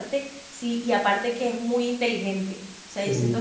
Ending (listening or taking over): listening